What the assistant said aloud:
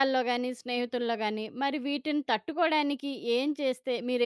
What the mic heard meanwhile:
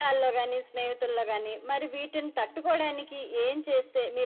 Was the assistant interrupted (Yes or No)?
No